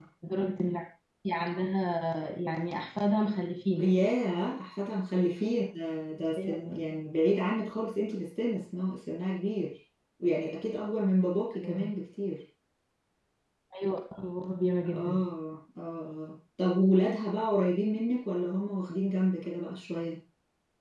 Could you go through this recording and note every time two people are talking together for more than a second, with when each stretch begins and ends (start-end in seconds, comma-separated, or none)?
none